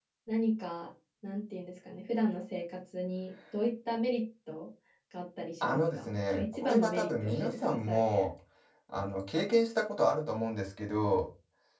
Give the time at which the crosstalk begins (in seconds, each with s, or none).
5.6 s